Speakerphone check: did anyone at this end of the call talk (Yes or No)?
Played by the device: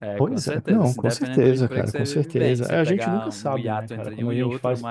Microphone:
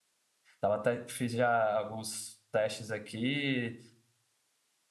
Yes